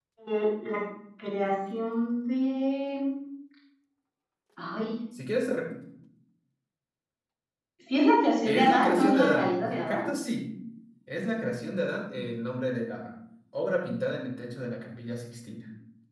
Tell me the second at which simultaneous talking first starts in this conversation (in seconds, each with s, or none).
8.4 s